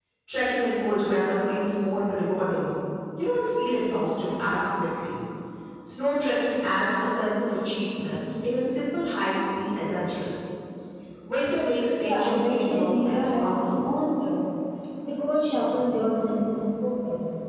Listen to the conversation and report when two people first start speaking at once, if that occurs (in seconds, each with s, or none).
12.0 s